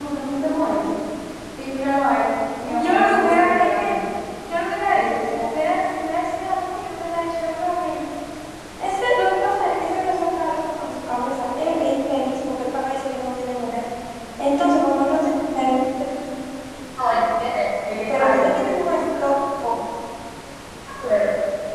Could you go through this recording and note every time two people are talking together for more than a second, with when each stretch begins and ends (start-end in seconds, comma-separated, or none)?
2.6-3.9